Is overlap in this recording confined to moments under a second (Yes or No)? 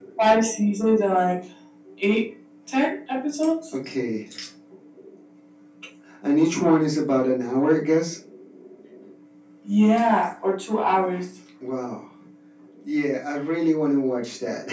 Yes